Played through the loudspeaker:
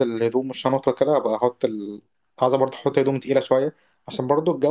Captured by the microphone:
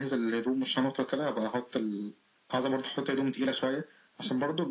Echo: present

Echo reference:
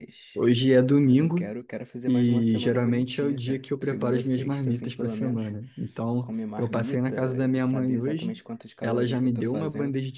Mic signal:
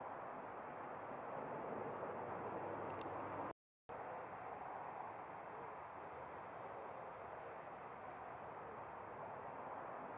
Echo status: none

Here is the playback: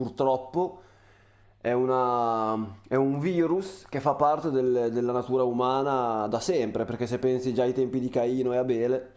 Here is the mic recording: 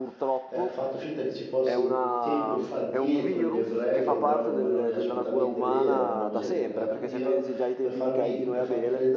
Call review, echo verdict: present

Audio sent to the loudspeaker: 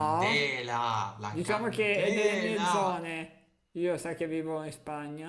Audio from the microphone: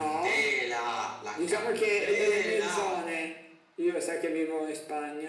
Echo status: present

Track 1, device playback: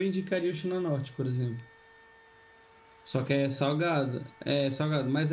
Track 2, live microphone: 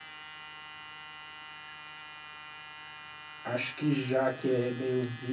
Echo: none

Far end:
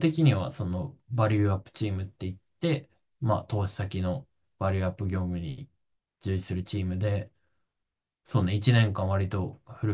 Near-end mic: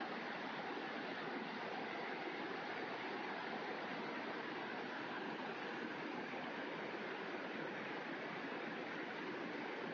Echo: none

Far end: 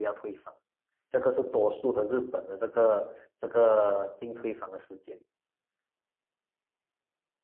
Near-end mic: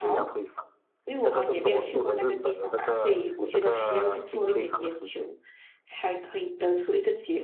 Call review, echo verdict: present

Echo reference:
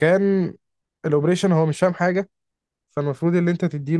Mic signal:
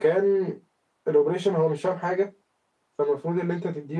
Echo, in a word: present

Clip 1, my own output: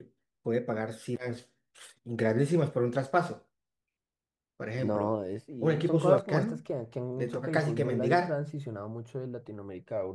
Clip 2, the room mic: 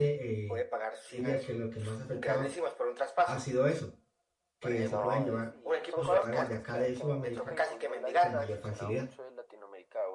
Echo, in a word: present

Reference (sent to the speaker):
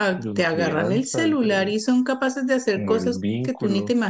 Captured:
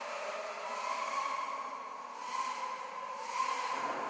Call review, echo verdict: none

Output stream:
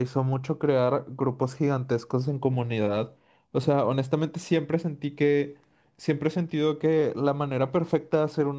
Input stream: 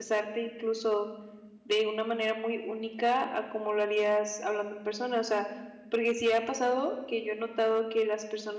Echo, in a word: none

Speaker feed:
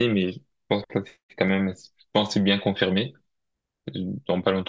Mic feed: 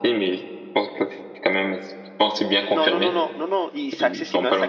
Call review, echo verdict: present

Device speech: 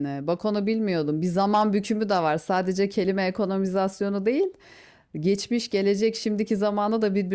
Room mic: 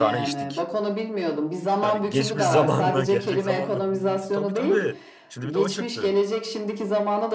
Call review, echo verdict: present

